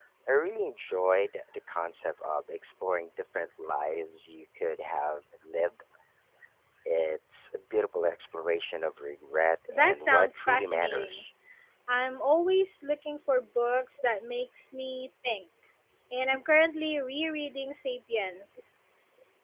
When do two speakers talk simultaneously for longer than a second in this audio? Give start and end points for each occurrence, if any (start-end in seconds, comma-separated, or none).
9.7-11.3